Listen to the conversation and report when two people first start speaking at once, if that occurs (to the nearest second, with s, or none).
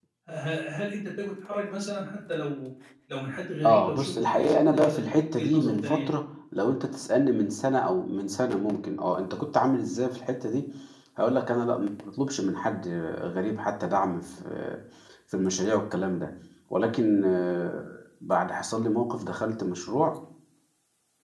4 s